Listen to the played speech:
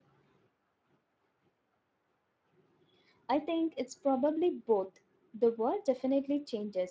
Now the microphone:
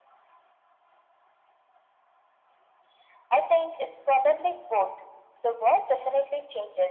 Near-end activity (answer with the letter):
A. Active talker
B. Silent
B